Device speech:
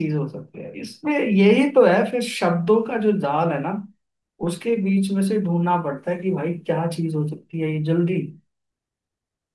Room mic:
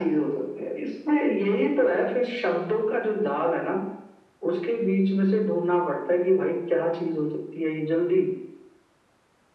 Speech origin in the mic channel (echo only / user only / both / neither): echo only